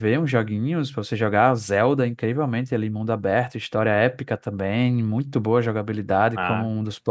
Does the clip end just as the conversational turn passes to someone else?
No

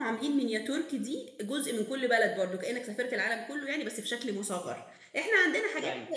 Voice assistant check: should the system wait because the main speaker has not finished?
Yes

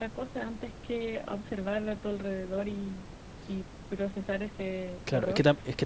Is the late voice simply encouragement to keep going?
No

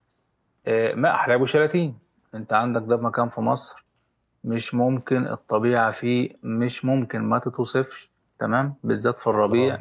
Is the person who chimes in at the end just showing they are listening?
Yes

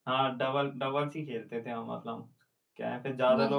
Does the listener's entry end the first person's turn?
No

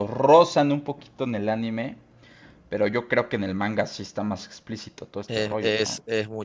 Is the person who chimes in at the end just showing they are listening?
No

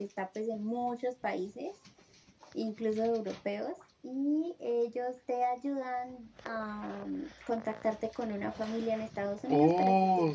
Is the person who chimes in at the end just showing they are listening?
No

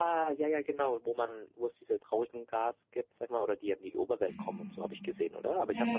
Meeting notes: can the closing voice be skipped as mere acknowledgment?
No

